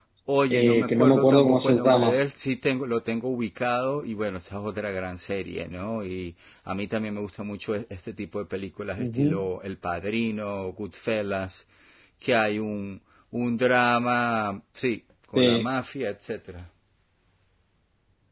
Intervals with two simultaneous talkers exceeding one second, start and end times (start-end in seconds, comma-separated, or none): 0.5-2.2